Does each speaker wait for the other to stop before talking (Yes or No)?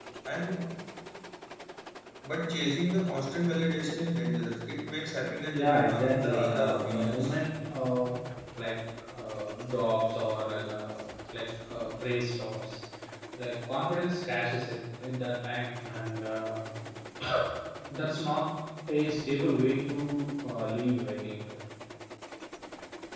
No